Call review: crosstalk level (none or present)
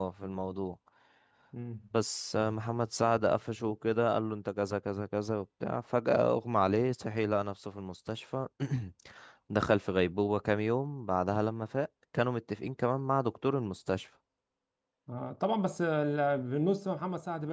none